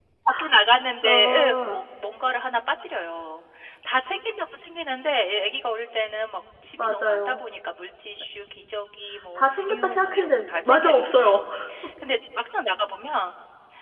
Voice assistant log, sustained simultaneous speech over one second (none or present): present